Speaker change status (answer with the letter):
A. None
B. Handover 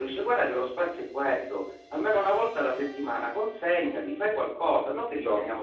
A